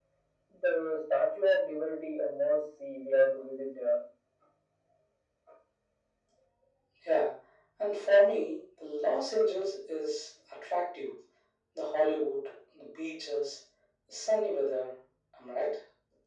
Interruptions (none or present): none